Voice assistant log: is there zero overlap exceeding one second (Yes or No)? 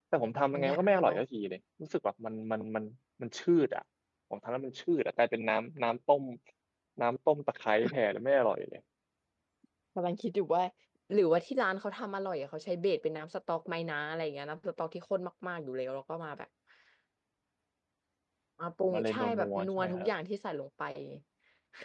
No